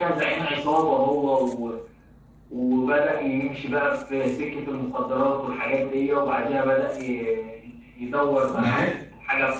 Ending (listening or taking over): listening